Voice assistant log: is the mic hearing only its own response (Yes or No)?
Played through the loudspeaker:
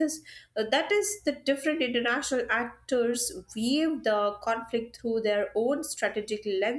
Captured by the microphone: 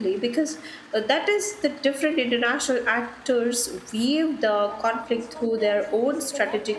No